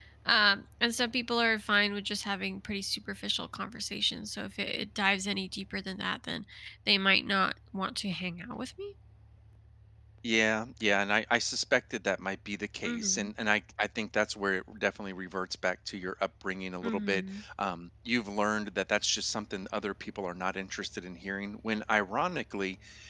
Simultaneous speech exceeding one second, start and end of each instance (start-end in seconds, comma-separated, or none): none